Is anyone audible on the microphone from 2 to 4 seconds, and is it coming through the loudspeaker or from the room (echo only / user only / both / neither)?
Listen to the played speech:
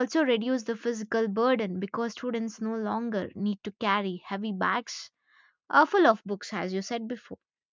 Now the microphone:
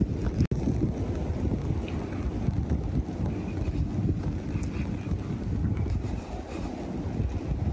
neither